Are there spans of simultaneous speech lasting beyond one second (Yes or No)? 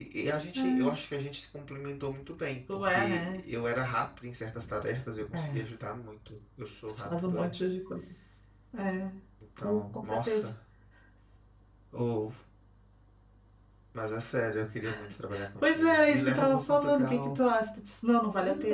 Yes